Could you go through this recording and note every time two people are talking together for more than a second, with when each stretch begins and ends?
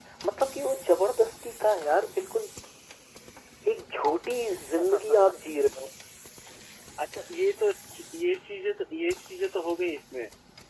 none

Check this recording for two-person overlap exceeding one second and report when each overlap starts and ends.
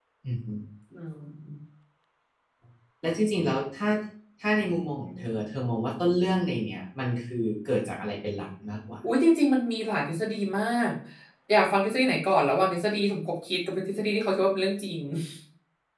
none

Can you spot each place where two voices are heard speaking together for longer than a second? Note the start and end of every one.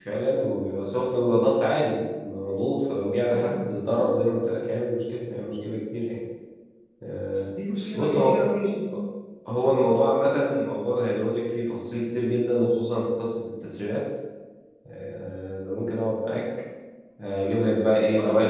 none

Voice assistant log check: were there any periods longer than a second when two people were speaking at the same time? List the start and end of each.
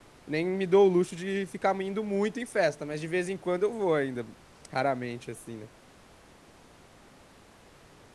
none

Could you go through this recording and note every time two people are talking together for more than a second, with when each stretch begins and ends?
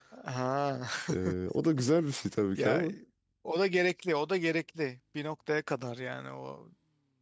none

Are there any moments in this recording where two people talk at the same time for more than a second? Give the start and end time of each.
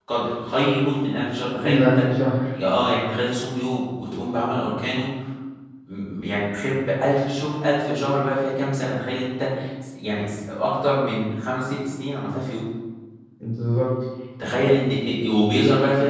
none

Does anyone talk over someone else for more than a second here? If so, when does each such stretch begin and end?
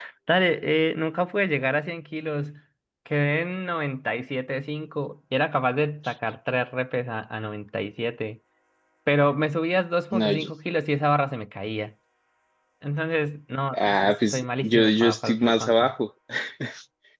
13.7-15.9

